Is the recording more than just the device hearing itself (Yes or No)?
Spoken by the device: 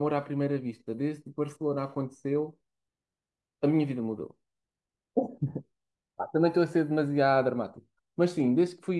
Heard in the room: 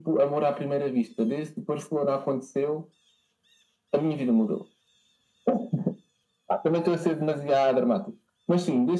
No